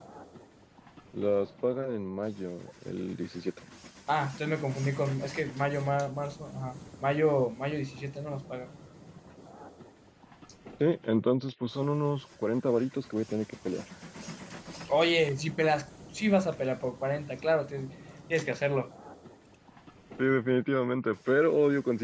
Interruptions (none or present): none